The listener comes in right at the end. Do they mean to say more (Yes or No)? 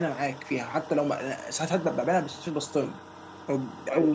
No